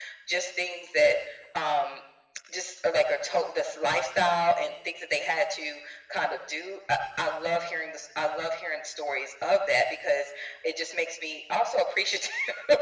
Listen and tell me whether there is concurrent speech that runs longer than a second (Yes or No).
No